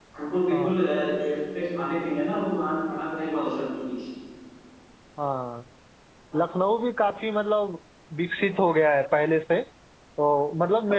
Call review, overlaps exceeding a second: none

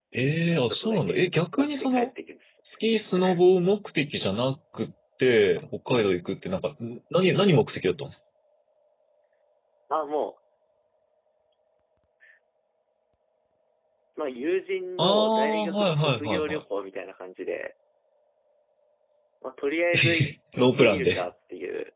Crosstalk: present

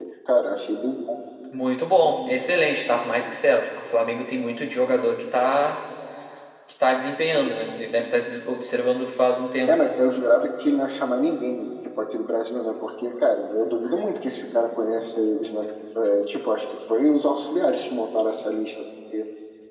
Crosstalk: none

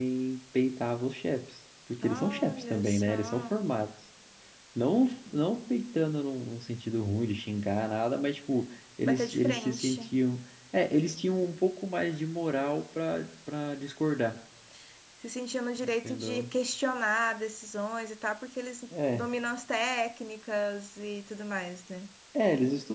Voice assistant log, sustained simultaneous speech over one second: present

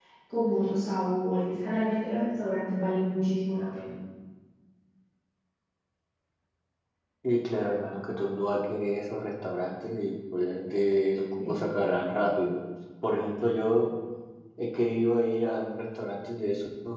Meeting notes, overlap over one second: none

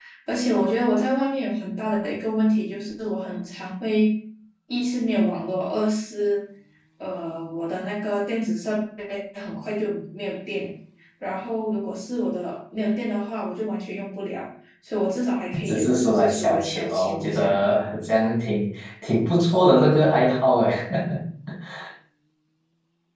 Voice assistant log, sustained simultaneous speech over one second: present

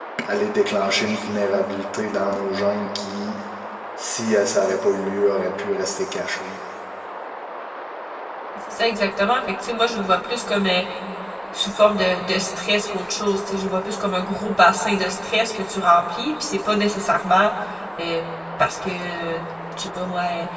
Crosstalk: none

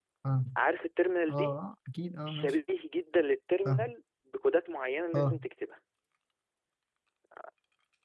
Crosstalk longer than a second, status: none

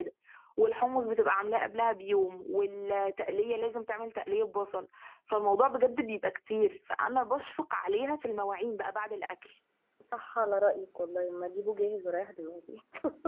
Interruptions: none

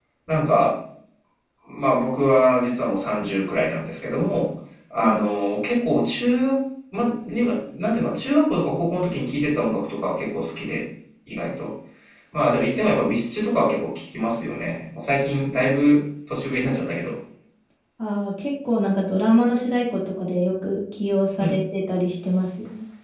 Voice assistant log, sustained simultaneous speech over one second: none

